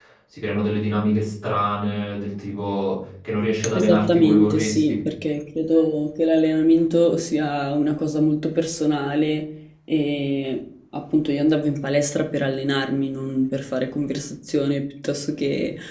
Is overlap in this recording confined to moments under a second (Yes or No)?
No